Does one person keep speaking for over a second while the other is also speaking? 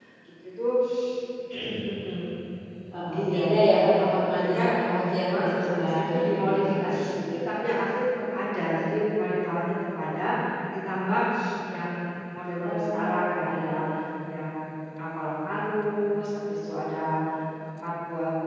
Yes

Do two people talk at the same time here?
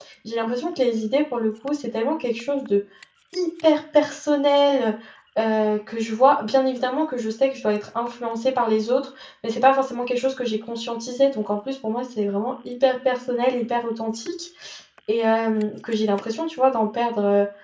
No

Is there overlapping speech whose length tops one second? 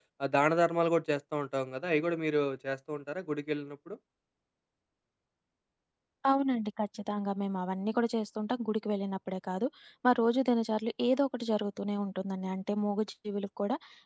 No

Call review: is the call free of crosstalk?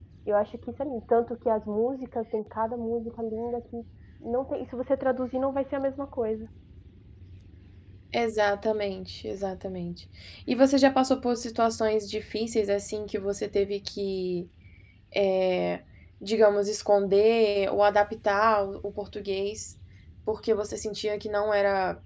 Yes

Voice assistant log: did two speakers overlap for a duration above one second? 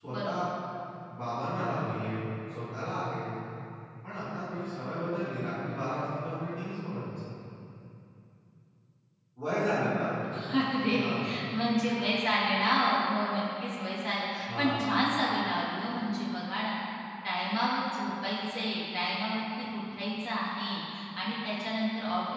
No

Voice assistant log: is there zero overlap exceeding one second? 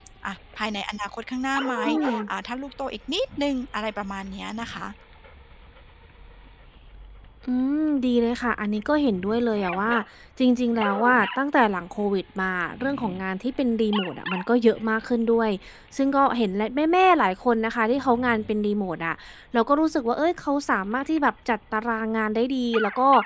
Yes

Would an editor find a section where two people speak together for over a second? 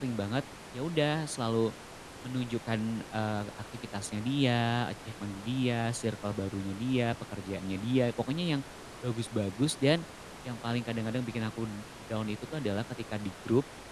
No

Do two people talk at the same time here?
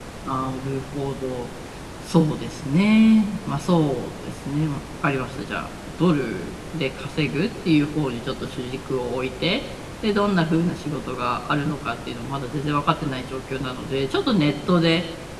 No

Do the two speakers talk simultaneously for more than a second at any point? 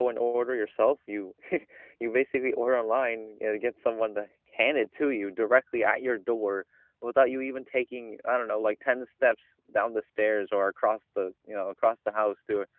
No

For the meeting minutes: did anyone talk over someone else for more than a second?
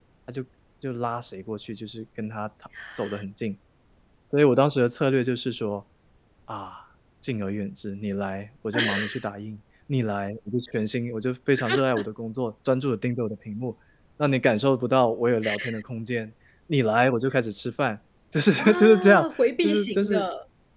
Yes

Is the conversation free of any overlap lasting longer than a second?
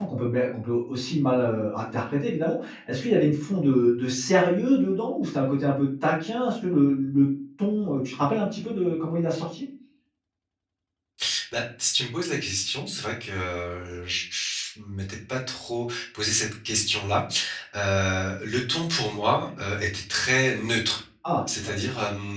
Yes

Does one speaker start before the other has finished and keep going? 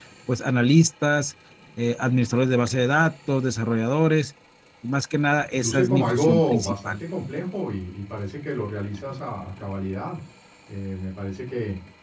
Yes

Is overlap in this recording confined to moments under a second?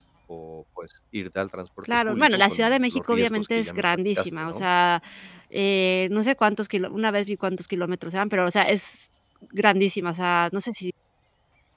No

